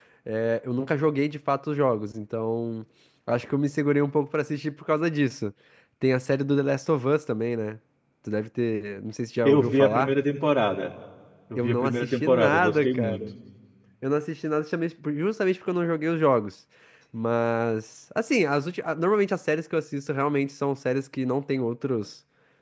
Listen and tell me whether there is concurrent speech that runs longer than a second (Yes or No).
Yes